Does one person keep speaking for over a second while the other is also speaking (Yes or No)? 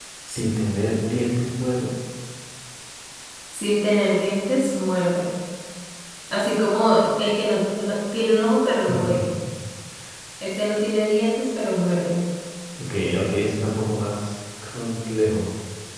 No